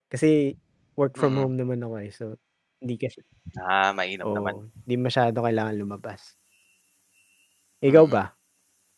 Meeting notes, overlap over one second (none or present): none